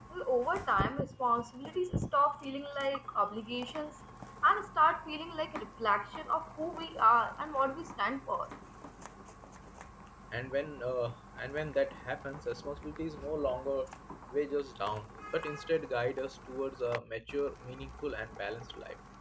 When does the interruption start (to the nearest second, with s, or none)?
none